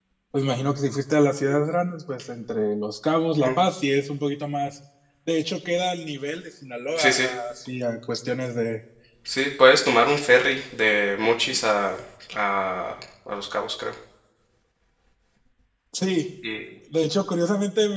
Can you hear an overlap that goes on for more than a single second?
No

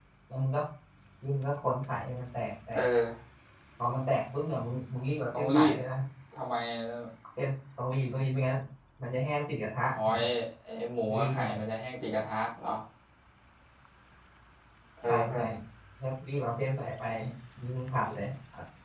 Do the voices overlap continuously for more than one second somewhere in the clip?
No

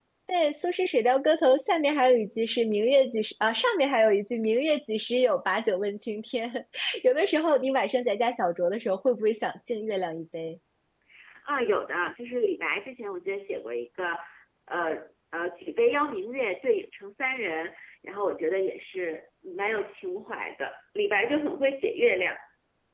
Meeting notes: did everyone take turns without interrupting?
Yes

